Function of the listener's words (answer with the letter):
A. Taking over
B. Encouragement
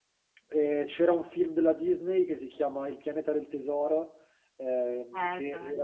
B